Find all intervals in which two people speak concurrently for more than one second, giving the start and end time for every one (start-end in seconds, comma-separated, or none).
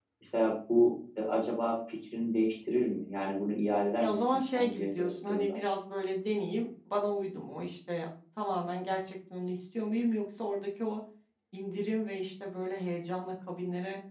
4.0-5.6